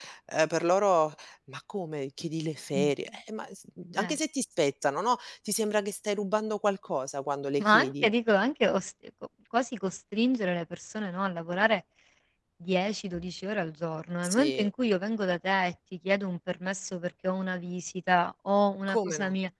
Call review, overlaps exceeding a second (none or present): none